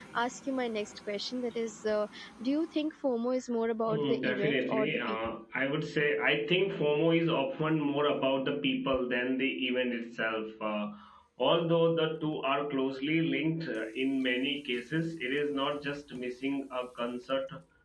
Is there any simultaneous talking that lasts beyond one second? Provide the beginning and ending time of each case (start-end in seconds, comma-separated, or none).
3.9-5.2